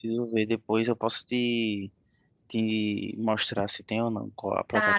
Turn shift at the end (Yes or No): Yes